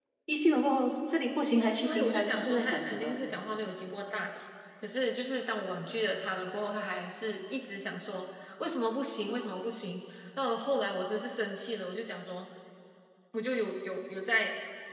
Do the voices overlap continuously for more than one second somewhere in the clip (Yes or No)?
Yes